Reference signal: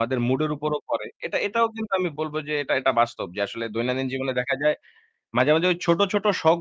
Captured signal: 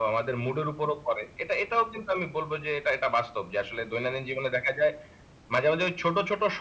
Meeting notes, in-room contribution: none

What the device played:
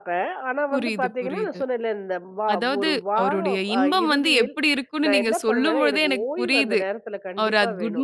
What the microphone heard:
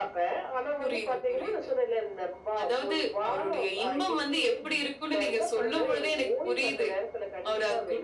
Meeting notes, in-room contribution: none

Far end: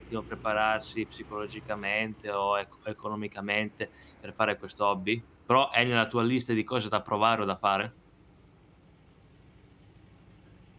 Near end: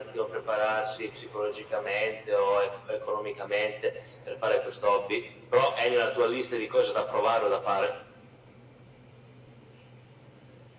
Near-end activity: none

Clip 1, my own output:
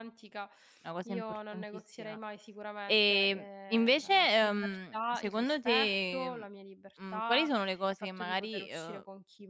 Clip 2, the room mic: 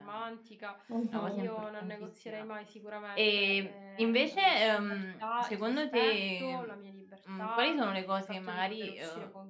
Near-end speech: present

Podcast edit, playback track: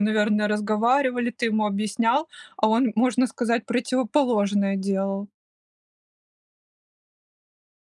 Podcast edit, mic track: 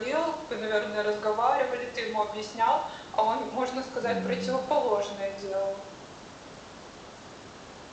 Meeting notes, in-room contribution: present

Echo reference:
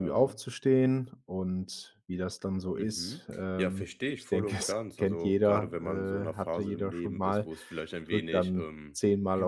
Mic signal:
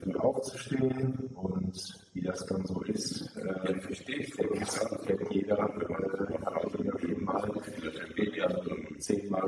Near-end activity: none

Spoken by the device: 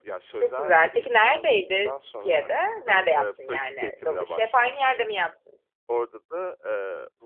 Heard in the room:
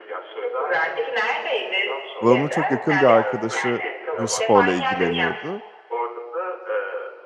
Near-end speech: present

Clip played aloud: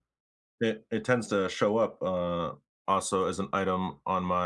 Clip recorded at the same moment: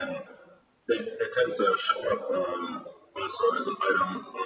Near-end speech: none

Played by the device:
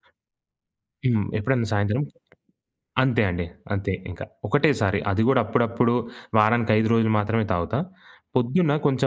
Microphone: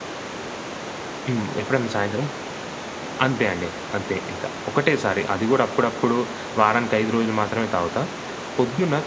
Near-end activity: none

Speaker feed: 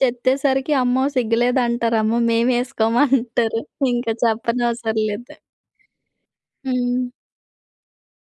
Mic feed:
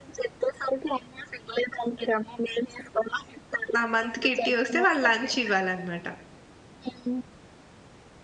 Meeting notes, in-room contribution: present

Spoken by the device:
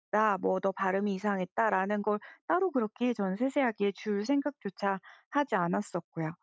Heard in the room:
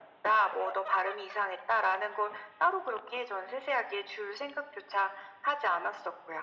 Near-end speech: none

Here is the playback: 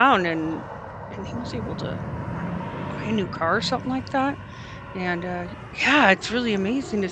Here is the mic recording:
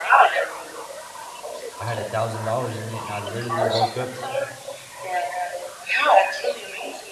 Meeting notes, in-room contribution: present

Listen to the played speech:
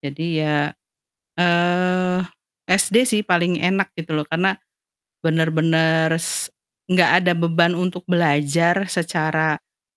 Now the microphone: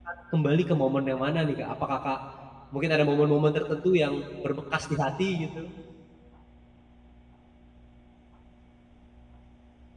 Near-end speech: present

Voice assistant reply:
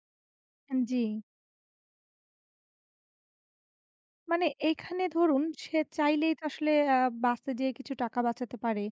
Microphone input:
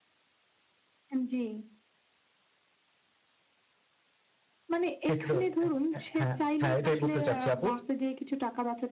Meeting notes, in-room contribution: present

